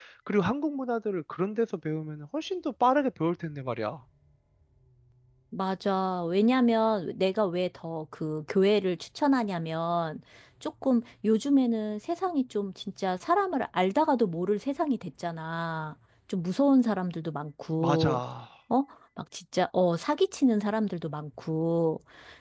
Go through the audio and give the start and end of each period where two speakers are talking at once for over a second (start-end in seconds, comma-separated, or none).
none